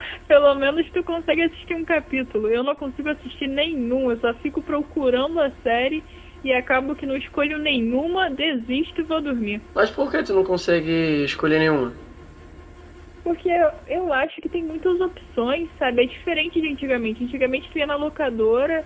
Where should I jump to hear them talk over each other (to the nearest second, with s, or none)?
none